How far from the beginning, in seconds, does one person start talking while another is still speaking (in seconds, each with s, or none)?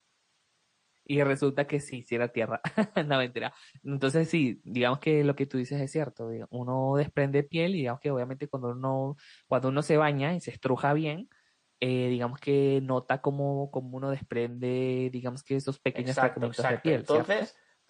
15.9 s